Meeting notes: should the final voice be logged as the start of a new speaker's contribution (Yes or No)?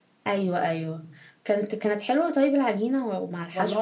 Yes